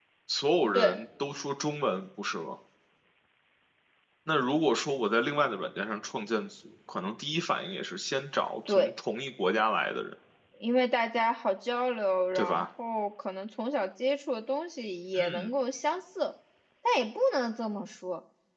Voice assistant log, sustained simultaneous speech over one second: none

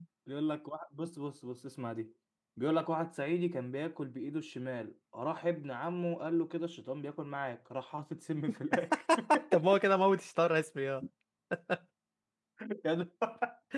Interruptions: none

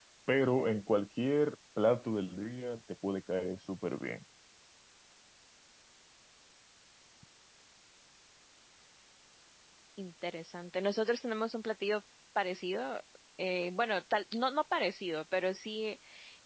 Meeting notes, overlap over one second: none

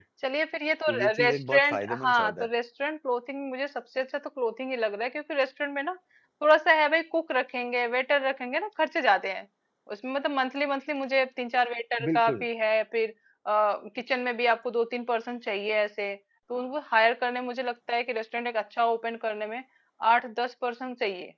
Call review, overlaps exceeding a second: present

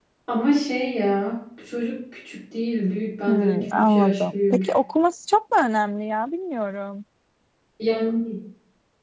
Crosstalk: present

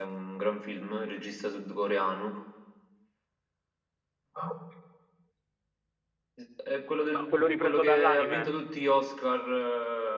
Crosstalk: present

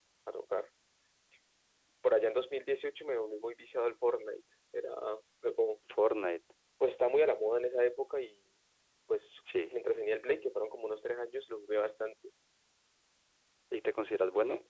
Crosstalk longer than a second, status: none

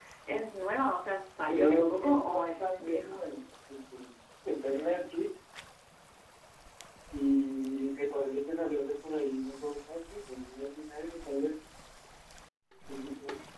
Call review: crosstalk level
present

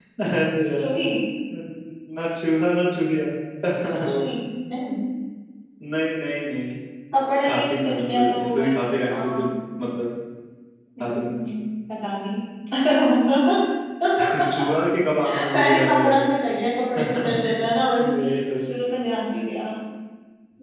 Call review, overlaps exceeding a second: present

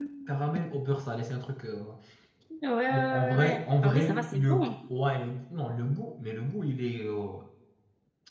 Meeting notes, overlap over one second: present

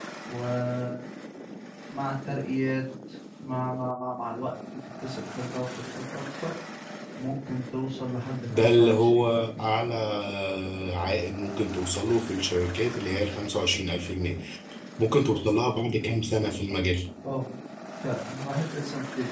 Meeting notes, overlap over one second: present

